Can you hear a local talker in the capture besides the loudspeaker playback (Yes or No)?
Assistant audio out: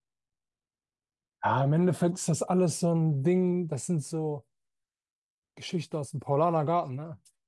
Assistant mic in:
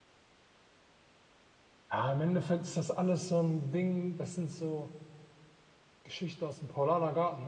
No